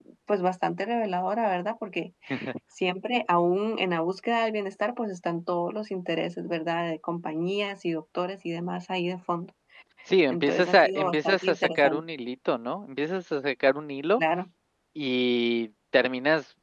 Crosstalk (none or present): present